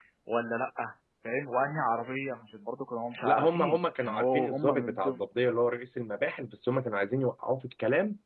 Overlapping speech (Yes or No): Yes